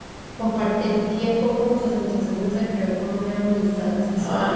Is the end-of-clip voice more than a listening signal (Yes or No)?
Yes